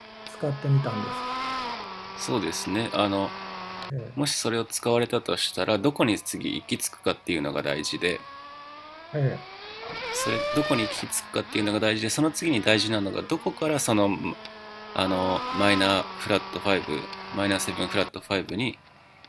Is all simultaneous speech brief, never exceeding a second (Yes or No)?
Yes